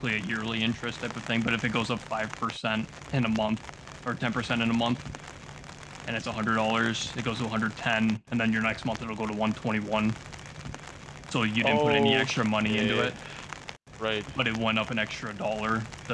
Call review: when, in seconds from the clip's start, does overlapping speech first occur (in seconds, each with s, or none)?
11.6 s